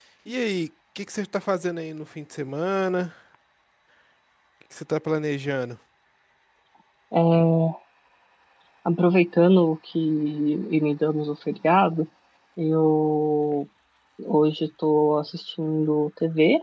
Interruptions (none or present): none